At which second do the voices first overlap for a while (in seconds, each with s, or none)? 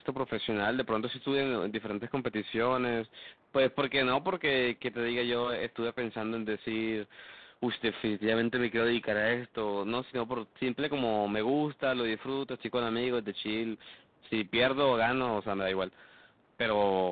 none